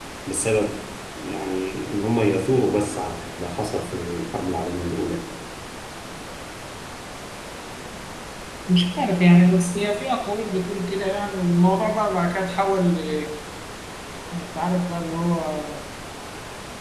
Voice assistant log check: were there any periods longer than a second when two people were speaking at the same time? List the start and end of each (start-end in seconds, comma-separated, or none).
none